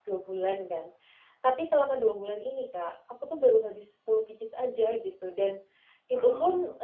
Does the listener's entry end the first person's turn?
No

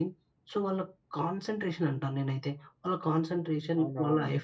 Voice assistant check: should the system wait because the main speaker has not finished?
Yes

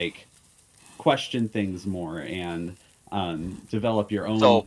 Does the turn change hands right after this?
No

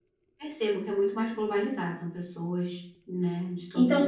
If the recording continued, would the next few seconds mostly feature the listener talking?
Yes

